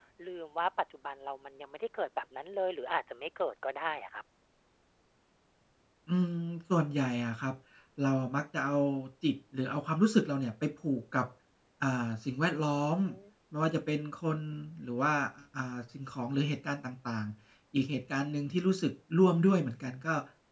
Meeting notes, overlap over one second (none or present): none